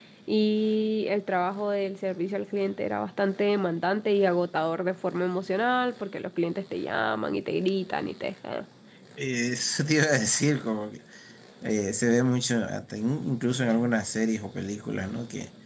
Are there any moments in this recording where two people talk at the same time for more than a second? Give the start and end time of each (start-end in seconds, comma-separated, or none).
none